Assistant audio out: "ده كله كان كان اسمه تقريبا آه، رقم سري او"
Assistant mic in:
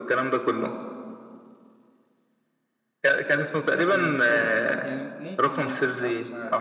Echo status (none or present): present